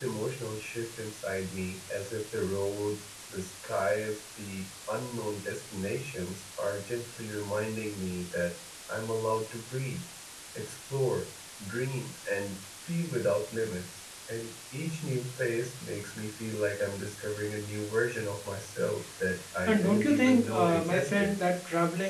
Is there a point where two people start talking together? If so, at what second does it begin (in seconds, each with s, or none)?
19.7 s